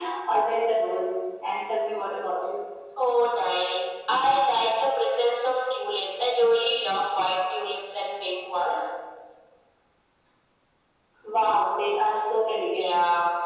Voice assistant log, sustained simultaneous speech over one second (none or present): none